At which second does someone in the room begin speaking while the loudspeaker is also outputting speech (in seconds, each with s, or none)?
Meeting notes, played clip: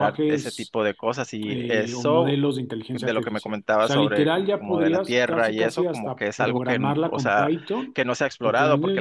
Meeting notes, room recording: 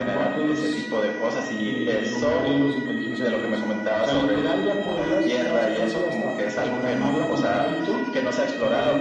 none